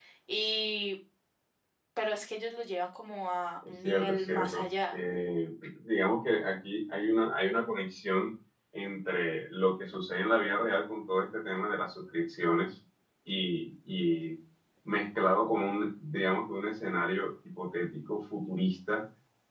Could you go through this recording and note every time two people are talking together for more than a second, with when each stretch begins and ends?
3.7-5.0

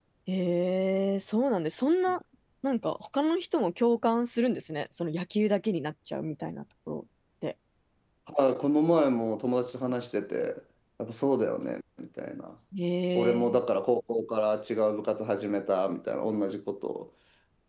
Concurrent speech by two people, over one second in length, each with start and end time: none

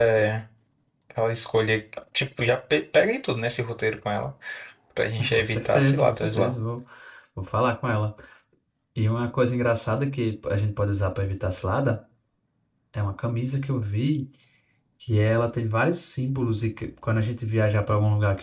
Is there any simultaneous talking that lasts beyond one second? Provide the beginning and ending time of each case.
5.2-6.6

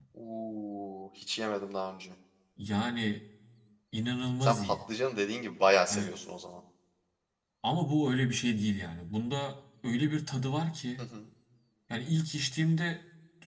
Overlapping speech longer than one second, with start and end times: none

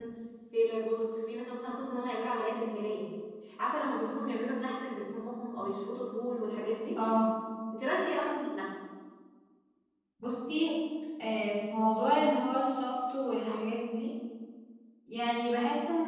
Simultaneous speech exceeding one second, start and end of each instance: none

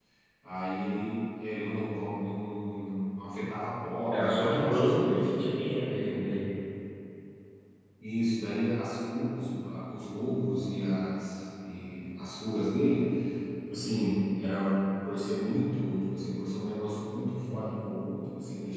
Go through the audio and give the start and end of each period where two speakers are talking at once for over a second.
4.1-5.3

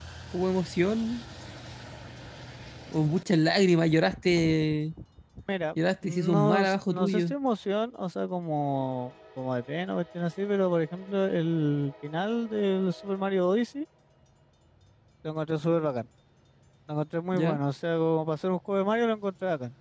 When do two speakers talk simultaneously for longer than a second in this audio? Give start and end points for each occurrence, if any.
6.0-7.3

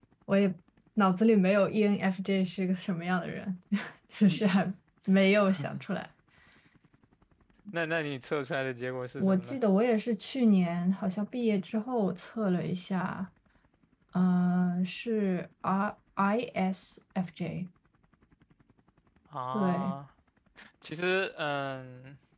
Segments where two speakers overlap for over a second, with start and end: none

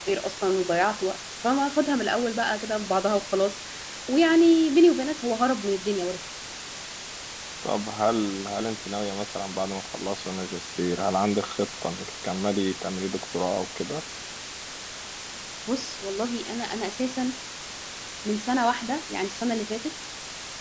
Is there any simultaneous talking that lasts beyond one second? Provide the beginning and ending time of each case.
none

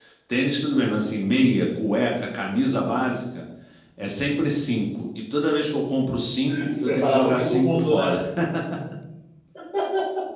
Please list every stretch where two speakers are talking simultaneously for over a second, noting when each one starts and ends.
6.7-8.2

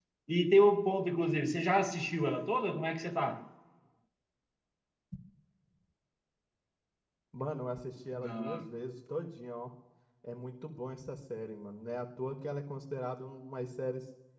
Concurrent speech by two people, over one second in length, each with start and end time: none

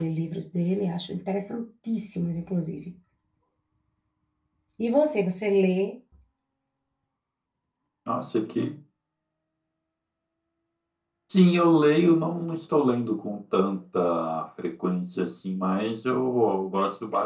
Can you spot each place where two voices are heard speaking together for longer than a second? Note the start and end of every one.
none

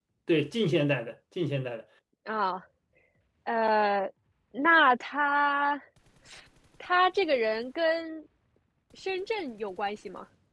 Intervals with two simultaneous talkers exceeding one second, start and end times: none

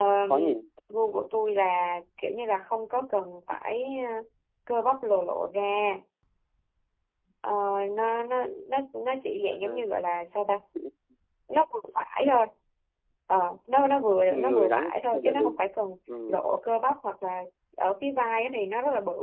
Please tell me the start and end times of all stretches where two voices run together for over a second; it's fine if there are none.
14.3-15.5

